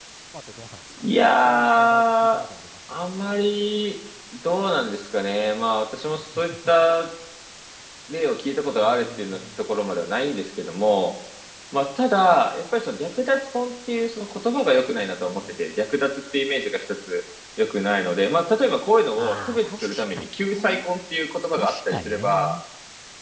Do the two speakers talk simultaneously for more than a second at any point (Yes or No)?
Yes